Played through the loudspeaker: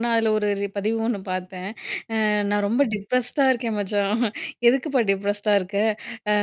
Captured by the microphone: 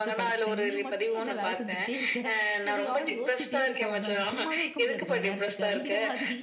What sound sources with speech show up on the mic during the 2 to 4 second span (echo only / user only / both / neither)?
both